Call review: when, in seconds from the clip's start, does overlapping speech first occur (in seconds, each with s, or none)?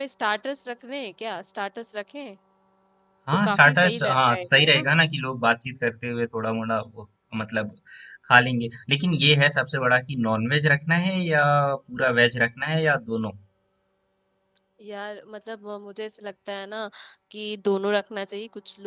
3.4 s